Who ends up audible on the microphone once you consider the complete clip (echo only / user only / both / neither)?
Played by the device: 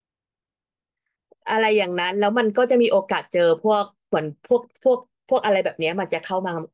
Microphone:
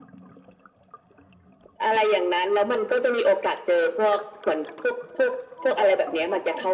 both